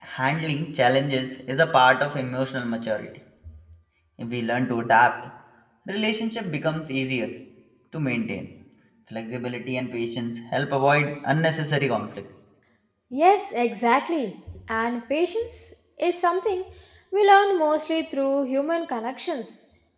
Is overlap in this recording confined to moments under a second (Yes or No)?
Yes